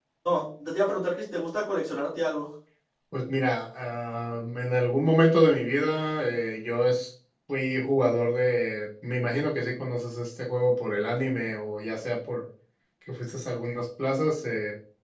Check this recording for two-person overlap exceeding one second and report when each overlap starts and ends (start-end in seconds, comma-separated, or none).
none